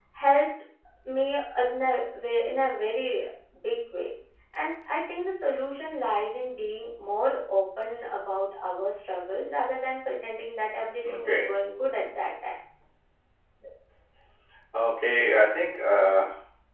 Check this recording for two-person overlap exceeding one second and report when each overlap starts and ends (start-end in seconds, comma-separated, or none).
none